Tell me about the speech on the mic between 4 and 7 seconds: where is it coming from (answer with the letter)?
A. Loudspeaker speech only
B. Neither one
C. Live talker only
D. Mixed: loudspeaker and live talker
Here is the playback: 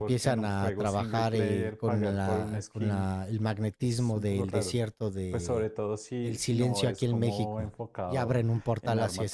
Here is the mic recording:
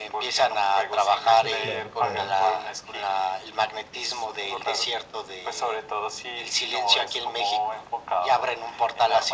A